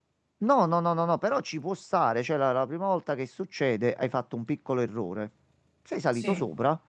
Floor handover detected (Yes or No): No